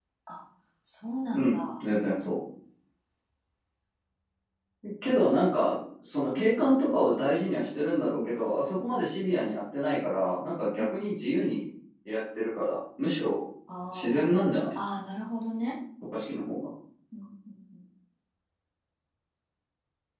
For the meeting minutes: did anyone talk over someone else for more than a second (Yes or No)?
No